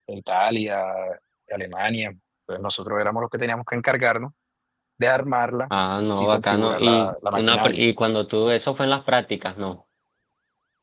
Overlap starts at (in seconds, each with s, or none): 6.2 s